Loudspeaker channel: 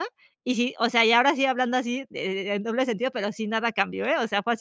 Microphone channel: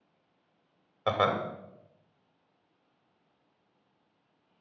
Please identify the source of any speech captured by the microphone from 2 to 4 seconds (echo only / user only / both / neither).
neither